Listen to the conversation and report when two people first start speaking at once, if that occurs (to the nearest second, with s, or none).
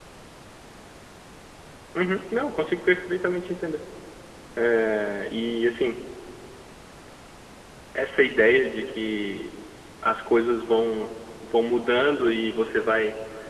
none